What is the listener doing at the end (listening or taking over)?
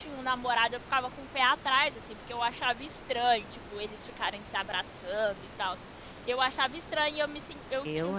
listening